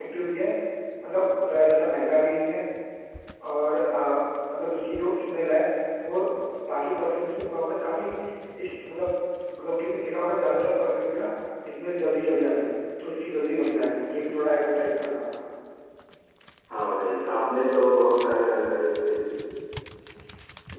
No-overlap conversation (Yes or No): Yes